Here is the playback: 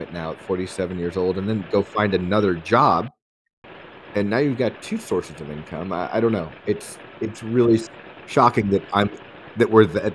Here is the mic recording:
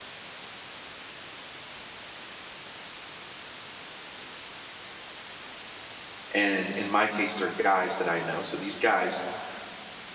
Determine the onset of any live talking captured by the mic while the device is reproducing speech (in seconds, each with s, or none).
6.3 s